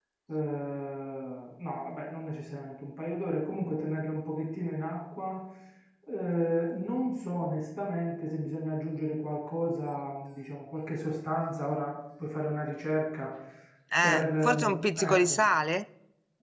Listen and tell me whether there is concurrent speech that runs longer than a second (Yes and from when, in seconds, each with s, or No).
Yes, from 14.0 s